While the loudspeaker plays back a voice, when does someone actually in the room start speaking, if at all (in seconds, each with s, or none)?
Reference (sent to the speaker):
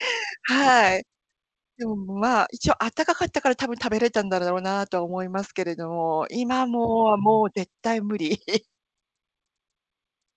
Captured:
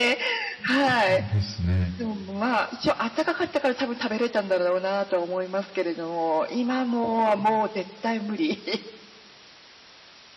0.6 s